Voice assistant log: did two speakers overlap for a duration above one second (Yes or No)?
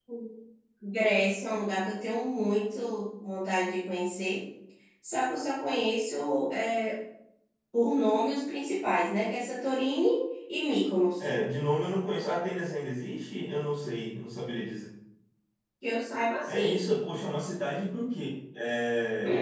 No